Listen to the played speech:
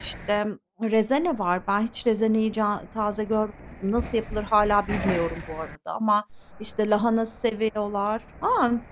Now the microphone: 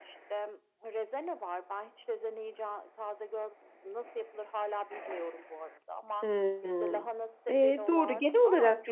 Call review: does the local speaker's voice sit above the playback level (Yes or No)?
Yes